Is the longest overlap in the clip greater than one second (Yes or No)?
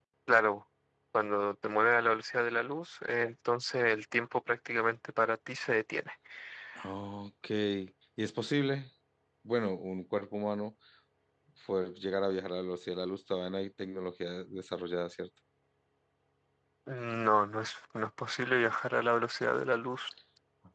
No